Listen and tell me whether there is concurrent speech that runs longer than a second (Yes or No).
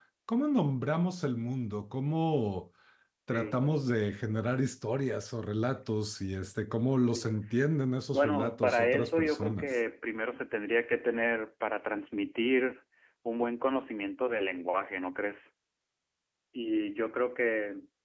Yes